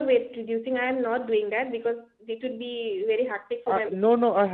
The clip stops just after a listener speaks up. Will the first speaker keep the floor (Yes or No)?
No